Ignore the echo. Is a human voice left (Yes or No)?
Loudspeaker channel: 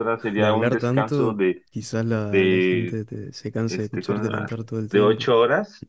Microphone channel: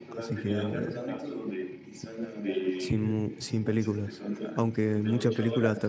Yes